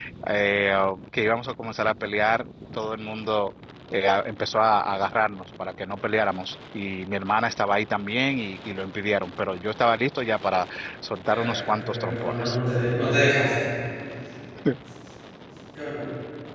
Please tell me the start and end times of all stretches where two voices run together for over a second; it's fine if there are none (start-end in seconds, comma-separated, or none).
11.3-12.6